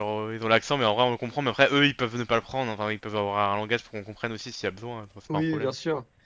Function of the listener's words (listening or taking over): taking over